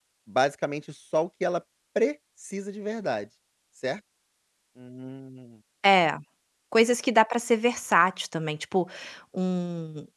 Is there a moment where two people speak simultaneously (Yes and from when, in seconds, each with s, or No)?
No